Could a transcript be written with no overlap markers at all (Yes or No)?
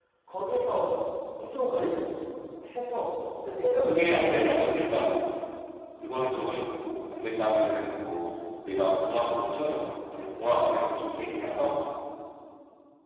No